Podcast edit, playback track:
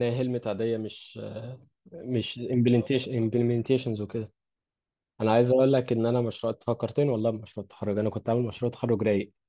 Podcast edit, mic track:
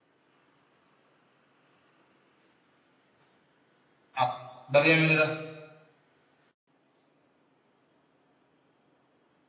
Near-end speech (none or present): present